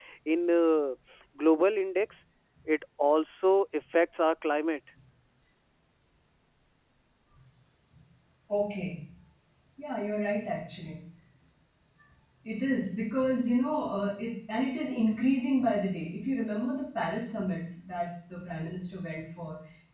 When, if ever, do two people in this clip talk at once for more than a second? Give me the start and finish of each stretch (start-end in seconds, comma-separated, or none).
none